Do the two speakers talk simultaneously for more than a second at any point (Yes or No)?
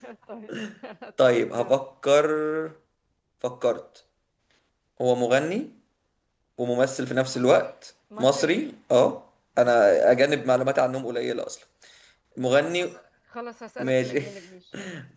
No